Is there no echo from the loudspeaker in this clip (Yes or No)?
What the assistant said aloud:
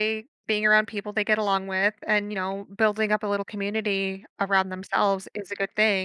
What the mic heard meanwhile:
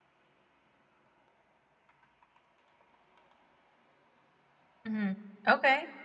Yes